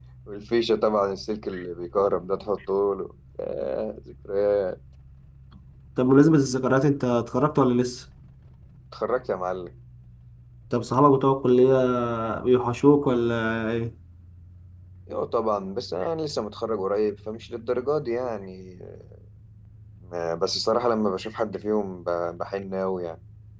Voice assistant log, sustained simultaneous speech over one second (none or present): none